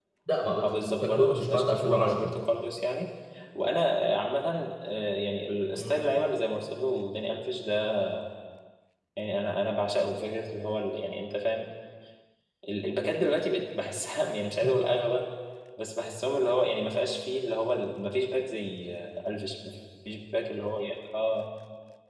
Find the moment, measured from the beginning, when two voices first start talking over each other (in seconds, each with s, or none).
0.6 s